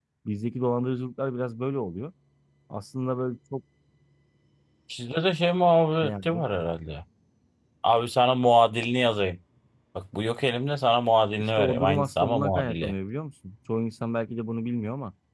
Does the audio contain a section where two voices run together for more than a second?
Yes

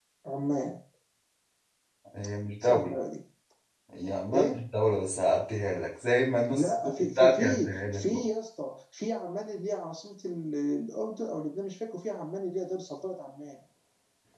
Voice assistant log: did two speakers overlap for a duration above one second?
Yes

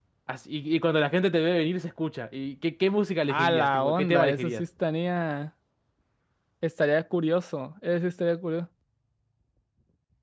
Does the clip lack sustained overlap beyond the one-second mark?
No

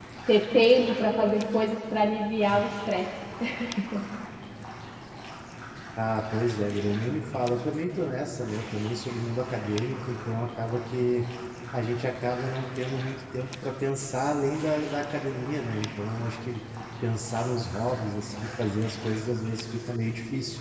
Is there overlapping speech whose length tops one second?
No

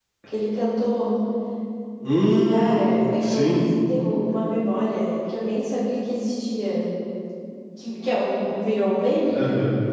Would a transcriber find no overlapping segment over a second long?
No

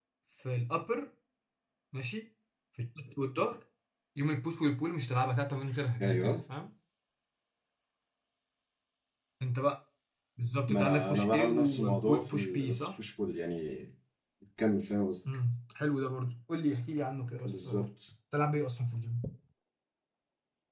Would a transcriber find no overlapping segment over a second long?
No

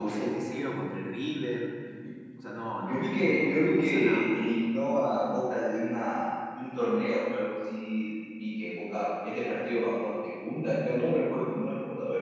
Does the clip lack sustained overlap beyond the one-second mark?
No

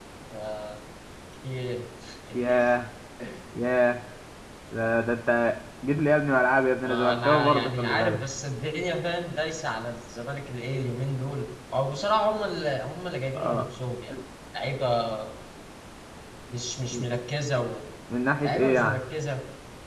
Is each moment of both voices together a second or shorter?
No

